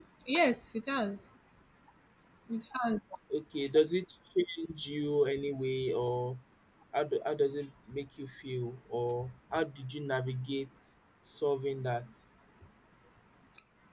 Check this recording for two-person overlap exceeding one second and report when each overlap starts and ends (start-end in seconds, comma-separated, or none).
none